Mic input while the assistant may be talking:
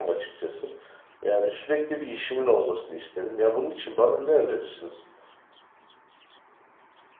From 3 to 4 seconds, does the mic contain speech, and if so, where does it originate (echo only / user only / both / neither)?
user only